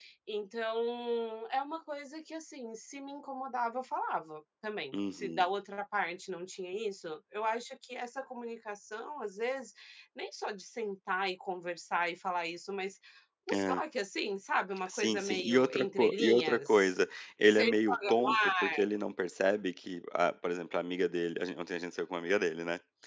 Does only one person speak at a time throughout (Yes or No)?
No